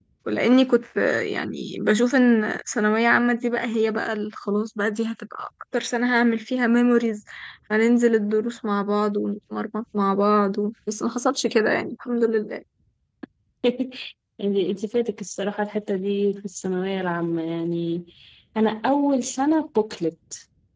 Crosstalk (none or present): none